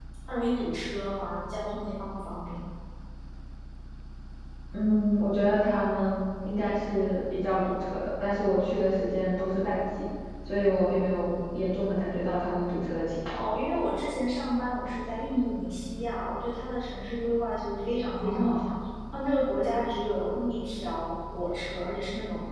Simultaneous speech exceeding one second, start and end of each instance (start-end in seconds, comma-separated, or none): none